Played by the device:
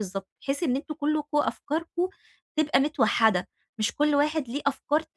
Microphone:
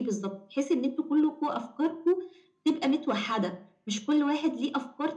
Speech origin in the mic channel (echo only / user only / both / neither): echo only